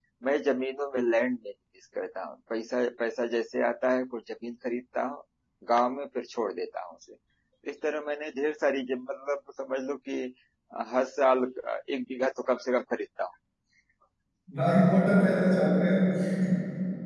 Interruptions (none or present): none